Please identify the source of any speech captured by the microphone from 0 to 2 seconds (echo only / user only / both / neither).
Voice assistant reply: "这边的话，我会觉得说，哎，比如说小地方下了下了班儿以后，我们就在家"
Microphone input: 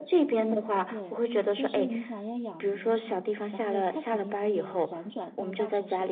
both